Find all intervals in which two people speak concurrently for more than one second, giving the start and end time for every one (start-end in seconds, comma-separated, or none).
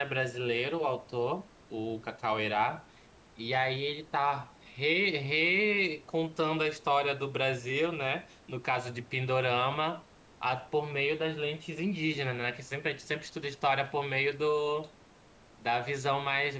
none